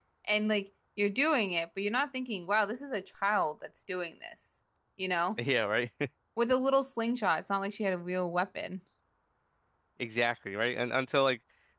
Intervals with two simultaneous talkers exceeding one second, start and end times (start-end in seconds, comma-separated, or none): none